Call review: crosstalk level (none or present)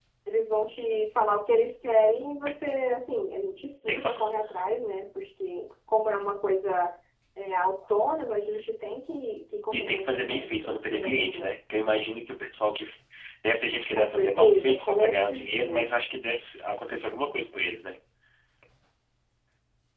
present